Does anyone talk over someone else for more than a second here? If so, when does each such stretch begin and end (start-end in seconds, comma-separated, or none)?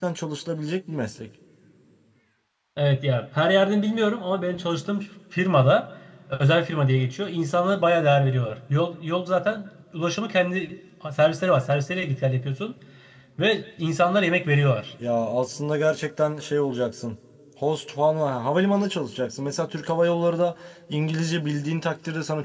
none